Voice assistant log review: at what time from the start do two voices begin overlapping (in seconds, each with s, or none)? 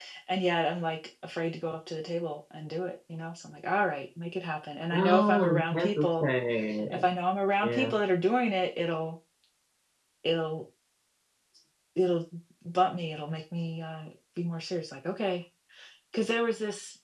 4.9 s